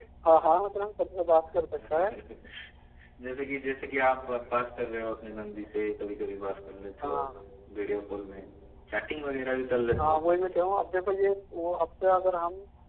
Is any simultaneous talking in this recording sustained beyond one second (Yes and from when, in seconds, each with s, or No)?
No